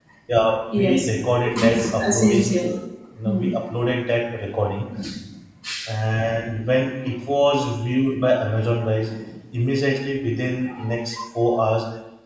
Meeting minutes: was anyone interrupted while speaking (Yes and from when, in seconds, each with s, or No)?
Yes, from 0.8 s